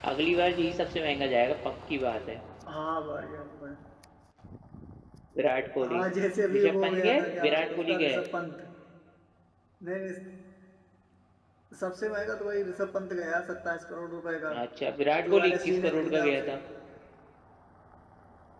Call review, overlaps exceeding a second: present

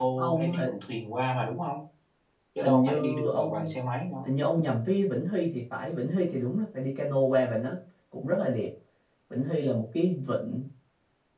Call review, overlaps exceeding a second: present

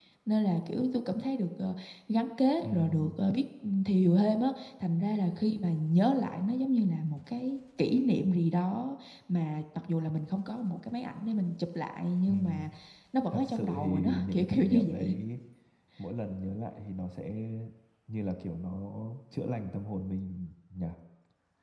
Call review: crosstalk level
present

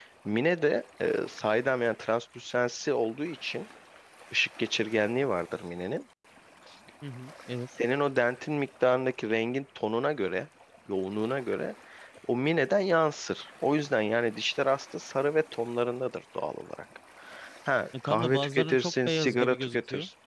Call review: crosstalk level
present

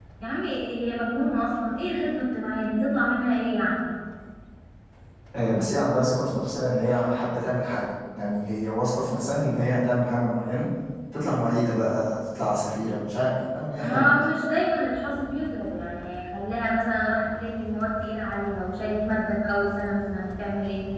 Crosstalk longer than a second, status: none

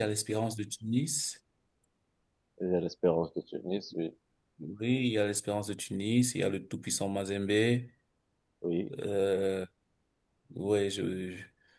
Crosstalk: none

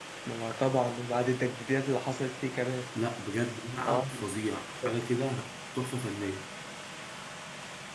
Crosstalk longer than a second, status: none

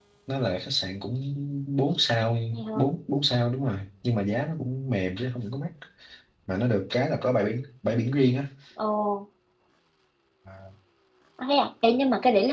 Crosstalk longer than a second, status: none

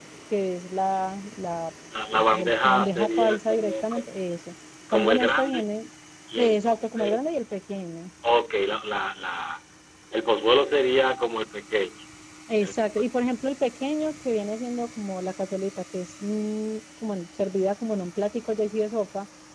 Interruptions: present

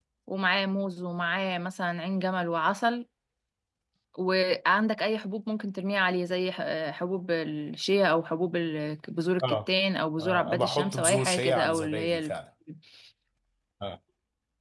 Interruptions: present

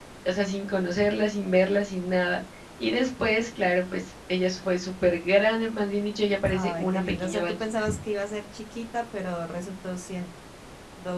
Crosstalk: present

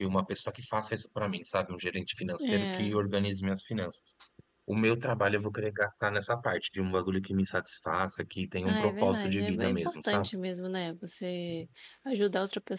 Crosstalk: present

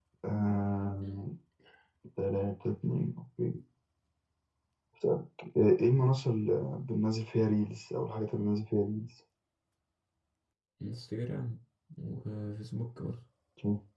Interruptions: none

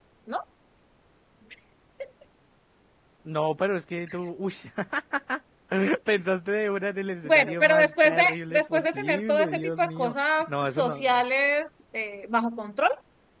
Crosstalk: present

